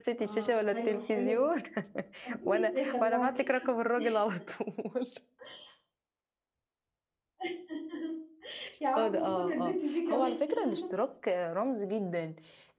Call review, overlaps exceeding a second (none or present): present